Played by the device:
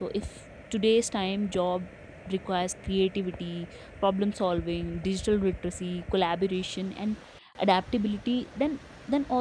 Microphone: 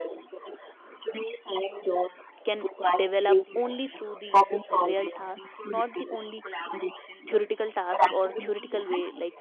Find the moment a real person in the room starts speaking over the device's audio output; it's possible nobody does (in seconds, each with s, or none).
2.4 s